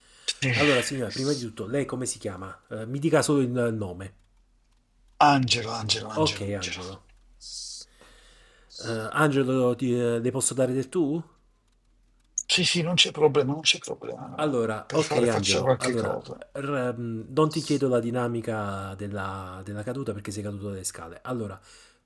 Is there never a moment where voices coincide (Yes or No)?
No